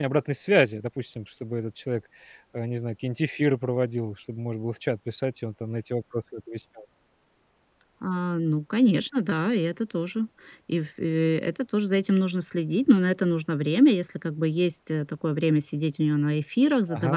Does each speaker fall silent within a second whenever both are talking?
Yes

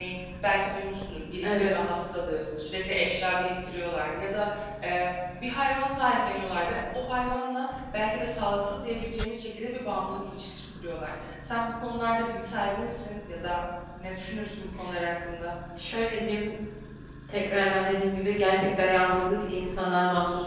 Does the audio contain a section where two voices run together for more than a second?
No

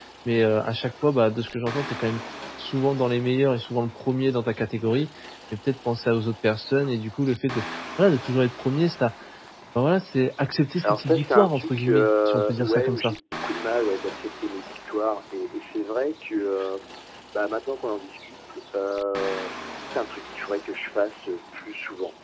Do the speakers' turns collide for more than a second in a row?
Yes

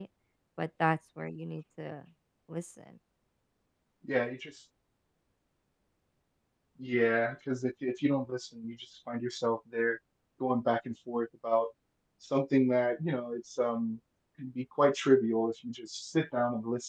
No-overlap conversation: Yes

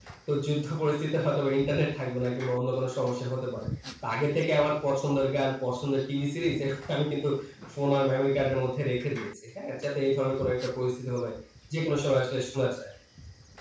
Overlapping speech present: No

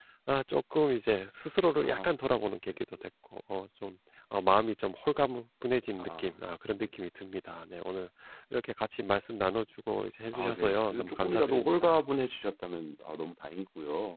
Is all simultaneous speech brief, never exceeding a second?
No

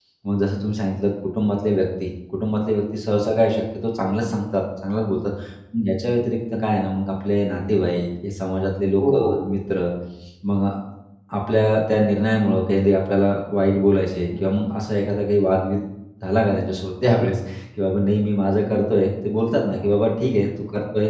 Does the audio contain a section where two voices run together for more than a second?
No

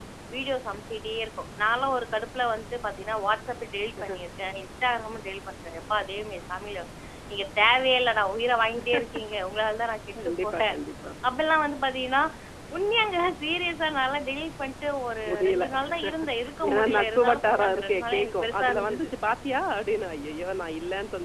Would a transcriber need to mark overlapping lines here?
Yes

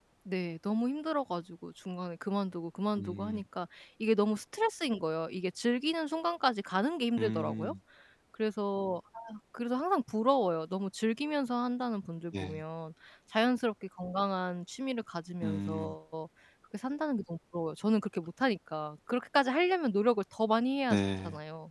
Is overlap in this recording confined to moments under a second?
Yes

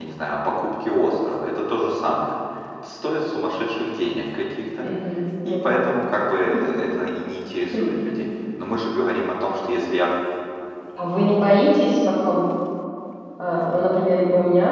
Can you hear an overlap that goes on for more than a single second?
No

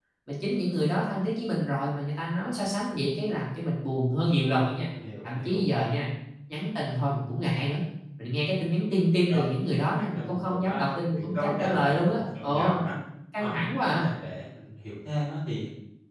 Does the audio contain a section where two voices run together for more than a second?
Yes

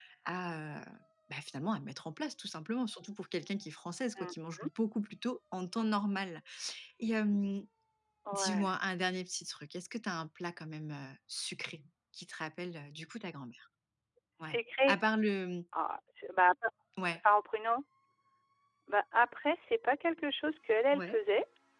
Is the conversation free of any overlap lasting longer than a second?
Yes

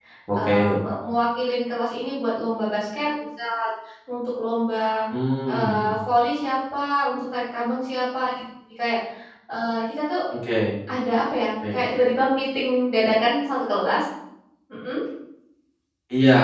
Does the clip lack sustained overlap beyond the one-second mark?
Yes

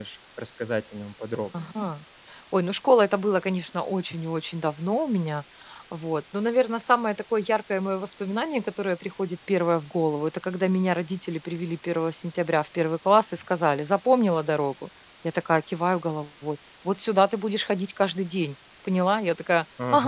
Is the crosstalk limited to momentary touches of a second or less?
Yes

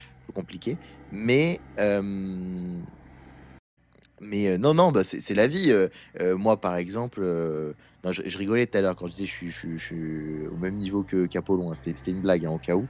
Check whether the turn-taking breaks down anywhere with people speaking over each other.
No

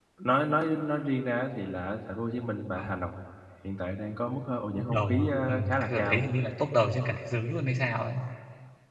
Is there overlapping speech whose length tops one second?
Yes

